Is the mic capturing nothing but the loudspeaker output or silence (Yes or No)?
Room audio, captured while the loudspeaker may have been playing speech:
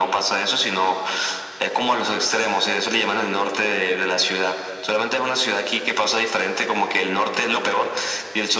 Yes